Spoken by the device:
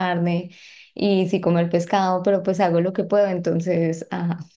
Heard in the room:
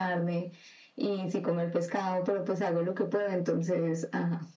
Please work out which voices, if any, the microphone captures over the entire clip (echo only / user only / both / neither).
echo only